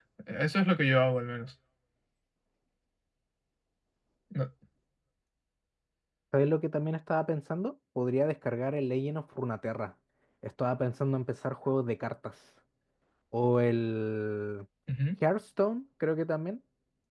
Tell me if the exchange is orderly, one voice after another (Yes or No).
Yes